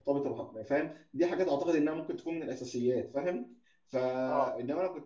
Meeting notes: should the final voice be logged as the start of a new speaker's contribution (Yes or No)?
No